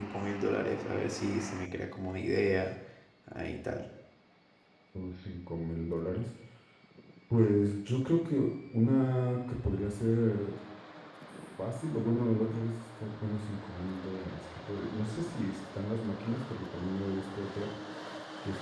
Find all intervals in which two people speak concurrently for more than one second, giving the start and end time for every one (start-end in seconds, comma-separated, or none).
none